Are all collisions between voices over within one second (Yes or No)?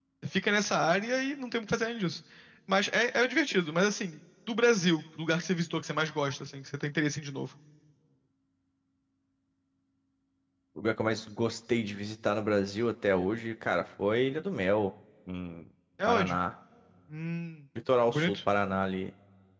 Yes